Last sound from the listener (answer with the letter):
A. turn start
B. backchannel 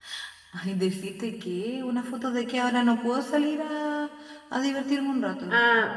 A